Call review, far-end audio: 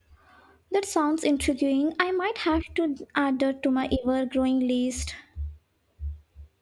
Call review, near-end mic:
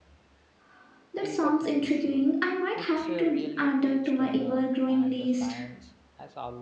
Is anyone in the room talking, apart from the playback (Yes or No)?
Yes